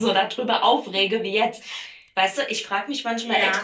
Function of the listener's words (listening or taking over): listening